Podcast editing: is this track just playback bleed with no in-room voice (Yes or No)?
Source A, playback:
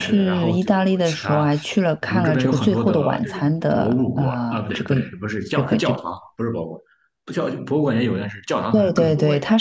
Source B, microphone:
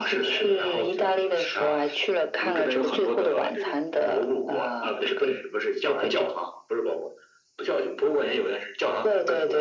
Yes